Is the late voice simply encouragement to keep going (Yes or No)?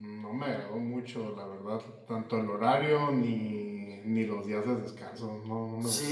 No